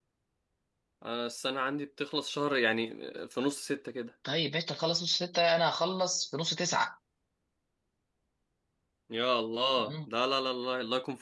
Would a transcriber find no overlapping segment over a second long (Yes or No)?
Yes